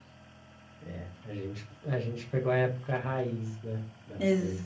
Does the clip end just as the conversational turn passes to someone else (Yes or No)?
Yes